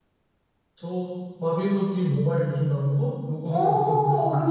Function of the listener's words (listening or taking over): taking over